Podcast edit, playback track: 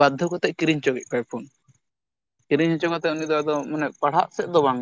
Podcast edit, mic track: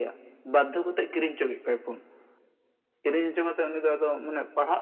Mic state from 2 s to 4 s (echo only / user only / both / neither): echo only